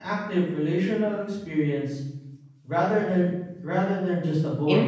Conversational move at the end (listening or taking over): taking over